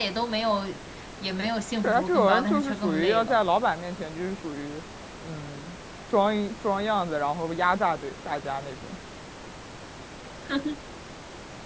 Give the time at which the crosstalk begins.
1.7 s

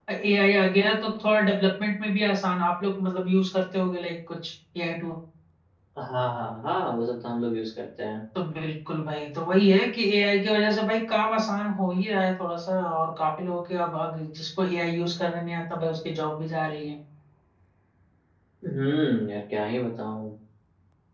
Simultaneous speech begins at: none

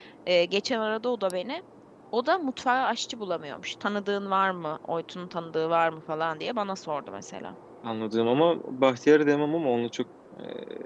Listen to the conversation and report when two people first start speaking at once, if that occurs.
none

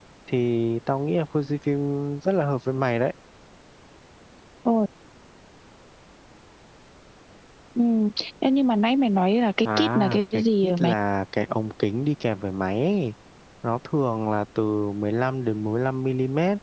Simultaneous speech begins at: 9.6 s

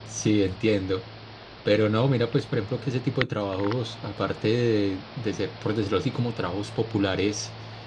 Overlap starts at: none

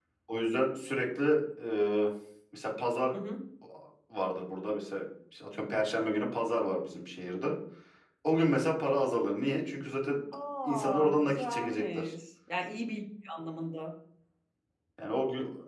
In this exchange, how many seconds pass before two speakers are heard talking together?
10.6 s

